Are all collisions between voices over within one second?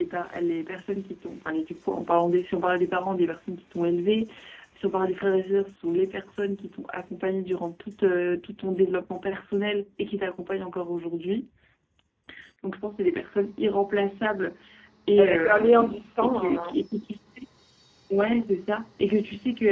No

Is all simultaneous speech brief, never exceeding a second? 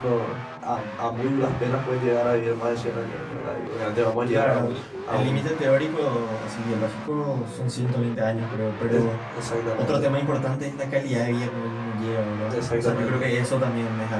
No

